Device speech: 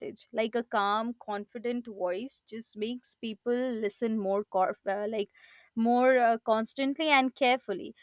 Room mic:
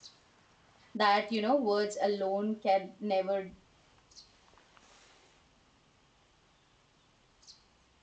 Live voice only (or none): that you know words alone can never